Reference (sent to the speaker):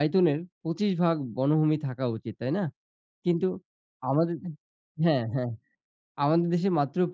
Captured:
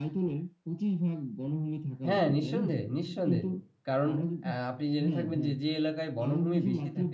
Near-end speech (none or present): present